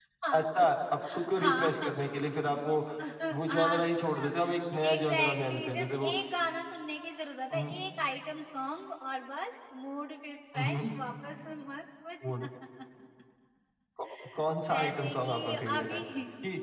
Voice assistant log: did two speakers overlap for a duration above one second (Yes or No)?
Yes